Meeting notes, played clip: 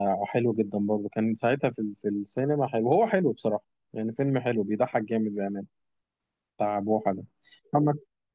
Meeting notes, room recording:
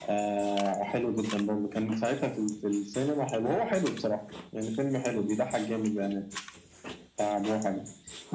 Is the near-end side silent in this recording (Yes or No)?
Yes